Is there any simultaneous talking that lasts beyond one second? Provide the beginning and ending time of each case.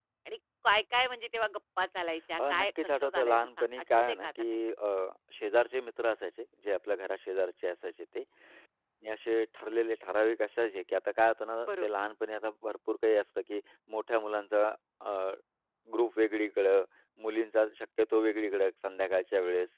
2.4-4.6

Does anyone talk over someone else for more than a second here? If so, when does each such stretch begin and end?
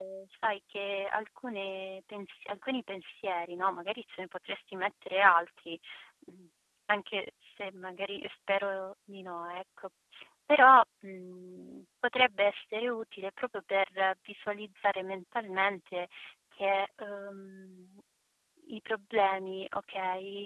none

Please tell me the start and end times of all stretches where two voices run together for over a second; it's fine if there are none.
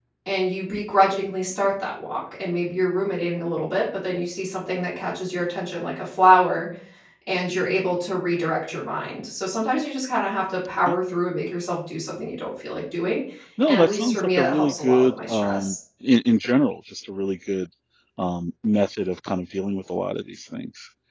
13.7-15.8

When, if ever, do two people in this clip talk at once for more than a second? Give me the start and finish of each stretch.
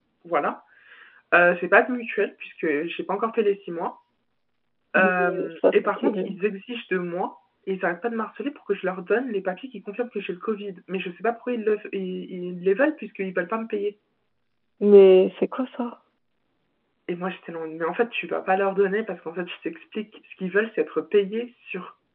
5.0-6.4

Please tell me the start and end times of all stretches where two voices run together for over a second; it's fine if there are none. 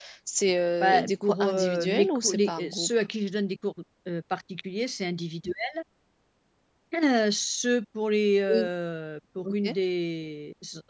0.8-2.9

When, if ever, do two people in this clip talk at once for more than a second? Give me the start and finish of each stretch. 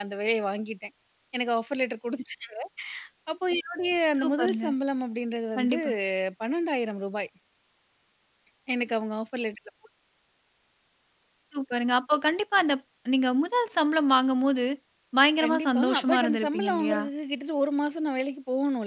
15.4-17.0

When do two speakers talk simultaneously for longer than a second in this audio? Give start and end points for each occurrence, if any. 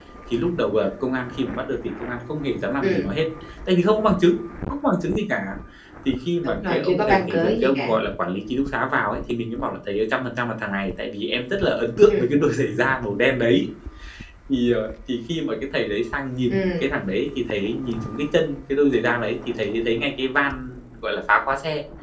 6.4-7.9

